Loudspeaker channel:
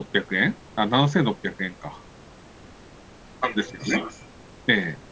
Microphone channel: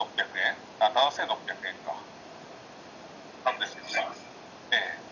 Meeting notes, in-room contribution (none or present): none